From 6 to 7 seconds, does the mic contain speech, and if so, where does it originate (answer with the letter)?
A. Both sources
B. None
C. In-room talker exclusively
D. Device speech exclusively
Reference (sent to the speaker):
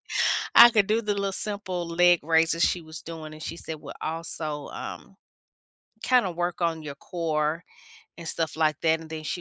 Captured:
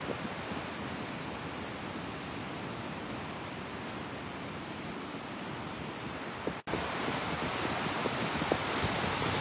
B